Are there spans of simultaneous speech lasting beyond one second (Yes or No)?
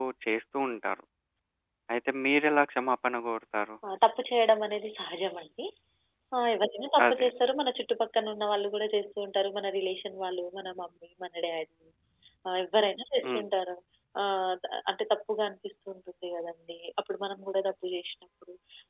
No